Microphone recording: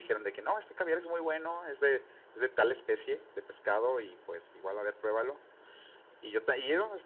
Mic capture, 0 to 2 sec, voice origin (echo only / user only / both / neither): echo only